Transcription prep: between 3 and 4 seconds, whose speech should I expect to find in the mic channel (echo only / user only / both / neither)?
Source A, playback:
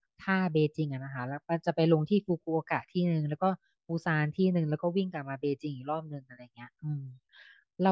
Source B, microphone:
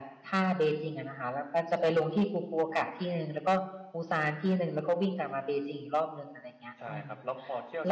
echo only